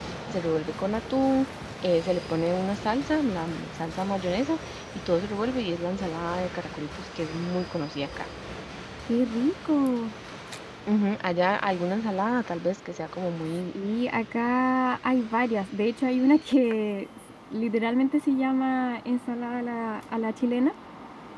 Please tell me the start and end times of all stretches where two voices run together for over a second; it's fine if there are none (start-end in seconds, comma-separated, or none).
none